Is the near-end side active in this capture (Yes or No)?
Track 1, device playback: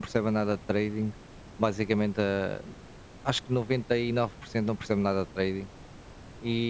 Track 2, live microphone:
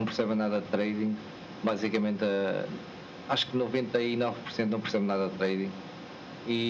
No